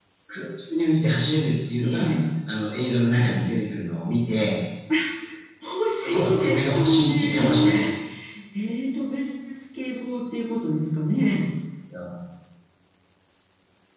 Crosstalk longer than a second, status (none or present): present